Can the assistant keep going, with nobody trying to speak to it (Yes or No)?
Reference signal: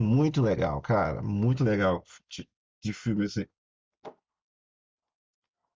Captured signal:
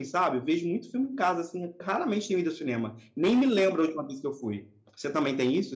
No